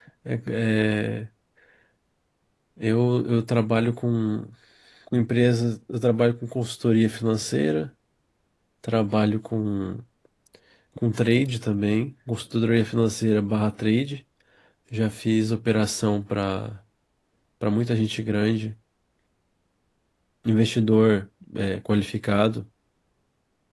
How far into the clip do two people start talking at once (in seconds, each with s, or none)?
none